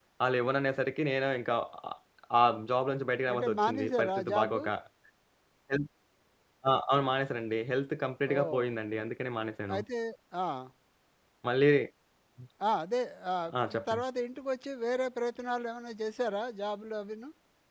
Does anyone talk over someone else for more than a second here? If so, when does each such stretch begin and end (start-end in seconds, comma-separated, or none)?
3.3-4.6